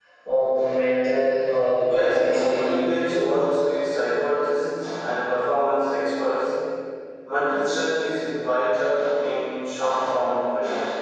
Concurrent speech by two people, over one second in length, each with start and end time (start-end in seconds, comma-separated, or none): 1.8-3.3